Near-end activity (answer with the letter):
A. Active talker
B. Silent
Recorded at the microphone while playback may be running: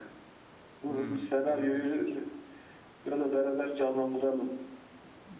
A